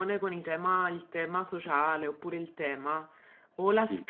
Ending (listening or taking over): listening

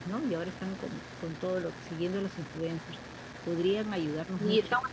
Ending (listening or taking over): taking over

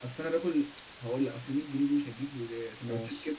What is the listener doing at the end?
listening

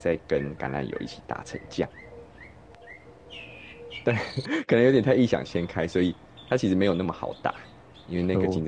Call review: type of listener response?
listening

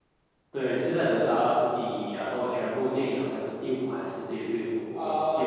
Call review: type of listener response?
taking over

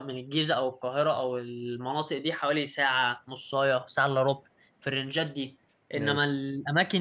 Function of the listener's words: listening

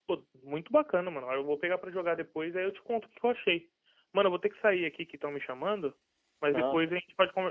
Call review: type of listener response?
listening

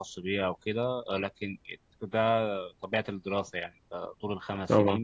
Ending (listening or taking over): listening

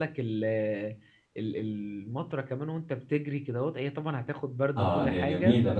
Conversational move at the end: taking over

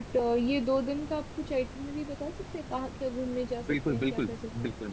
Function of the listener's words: taking over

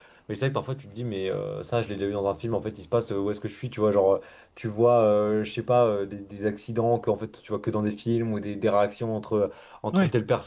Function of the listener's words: listening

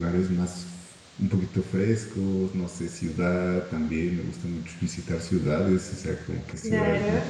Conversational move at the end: listening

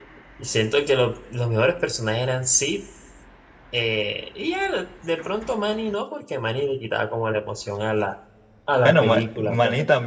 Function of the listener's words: taking over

